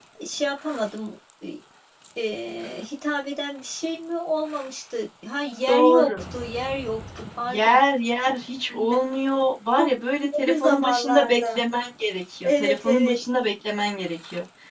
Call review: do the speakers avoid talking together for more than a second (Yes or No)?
No